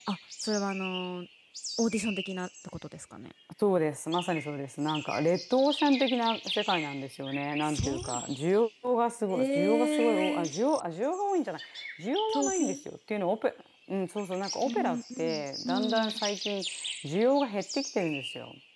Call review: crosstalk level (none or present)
present